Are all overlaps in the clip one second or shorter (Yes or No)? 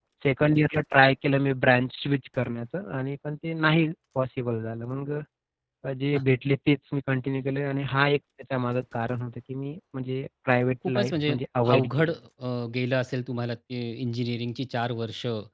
Yes